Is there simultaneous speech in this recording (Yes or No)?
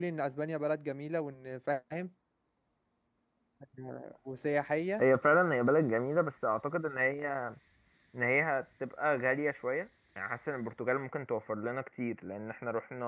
No